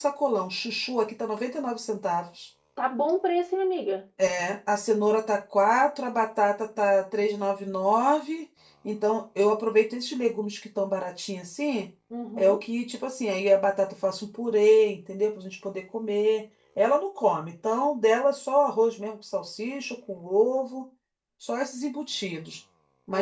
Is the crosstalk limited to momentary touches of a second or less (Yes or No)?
Yes